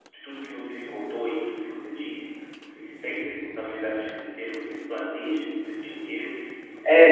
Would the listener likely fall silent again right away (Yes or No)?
No